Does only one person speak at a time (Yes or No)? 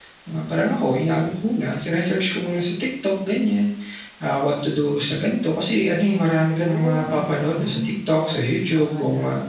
No